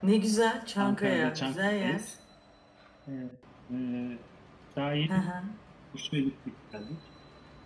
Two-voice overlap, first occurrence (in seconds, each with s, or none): 0.8 s